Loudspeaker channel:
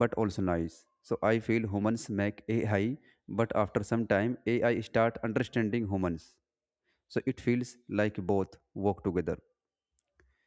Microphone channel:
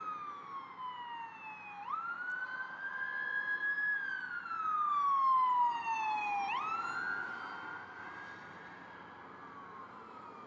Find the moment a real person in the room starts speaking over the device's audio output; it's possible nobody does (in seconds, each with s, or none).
none